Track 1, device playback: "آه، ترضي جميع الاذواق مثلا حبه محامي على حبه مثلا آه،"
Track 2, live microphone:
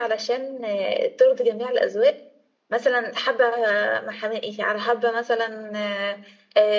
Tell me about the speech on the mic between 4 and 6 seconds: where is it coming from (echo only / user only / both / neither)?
echo only